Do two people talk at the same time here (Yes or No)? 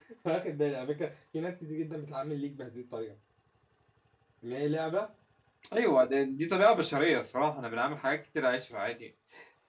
No